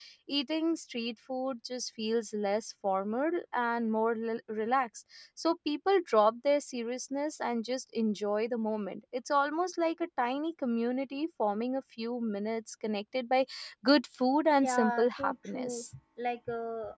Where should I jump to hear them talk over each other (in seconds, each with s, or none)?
14.6 s